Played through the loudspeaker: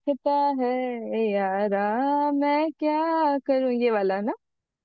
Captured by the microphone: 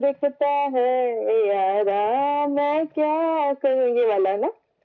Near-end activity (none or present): none